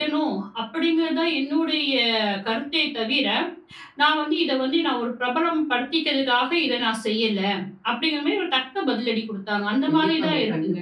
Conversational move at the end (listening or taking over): taking over